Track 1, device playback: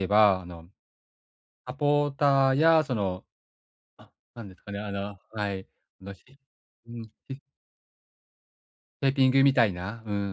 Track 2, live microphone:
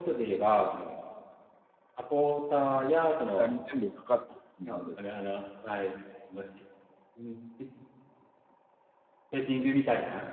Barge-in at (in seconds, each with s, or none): 2.7 s